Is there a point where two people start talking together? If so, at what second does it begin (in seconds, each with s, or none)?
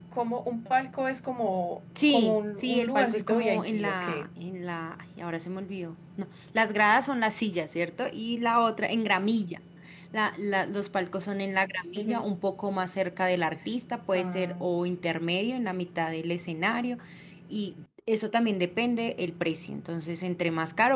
2.1 s